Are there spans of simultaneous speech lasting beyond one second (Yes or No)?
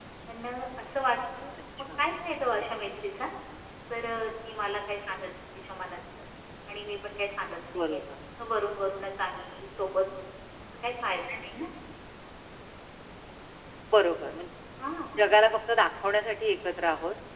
No